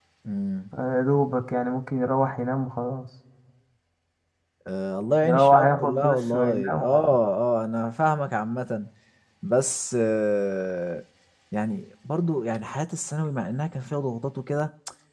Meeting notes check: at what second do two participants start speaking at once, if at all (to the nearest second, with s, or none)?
5 s